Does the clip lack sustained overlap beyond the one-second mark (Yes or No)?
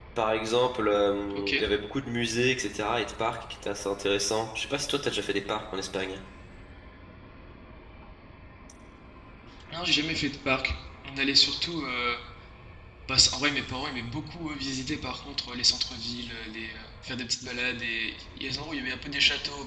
Yes